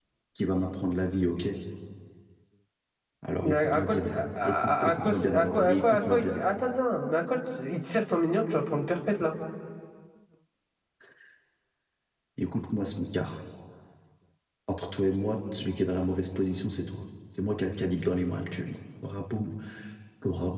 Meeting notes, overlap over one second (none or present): present